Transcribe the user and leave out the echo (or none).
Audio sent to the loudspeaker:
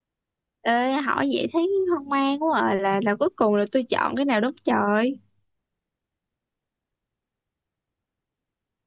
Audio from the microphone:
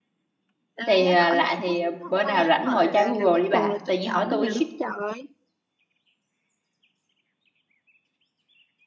thì à, lạ thì à, bữa nào rảnh ngồi tra Google đi bà tự nhiên hỏi tôi